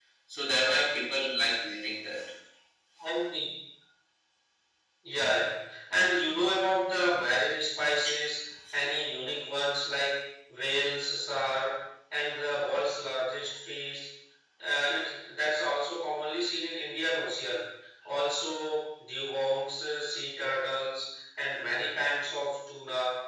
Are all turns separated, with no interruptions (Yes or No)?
Yes